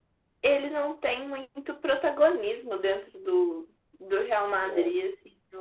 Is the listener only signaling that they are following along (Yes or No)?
Yes